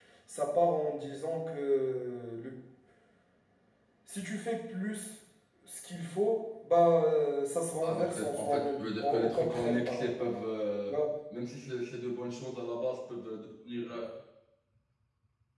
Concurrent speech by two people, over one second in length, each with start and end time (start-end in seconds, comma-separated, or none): 7.8-10.4